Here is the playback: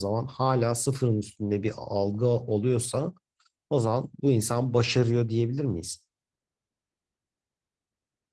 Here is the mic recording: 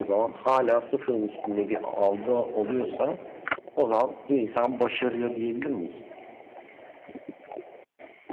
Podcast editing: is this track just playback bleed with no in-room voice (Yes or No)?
Yes